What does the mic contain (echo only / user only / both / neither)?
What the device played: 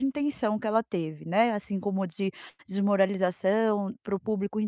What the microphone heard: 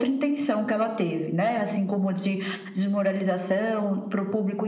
echo only